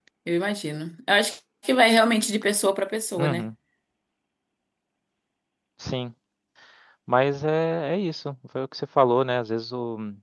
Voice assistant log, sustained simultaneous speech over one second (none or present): none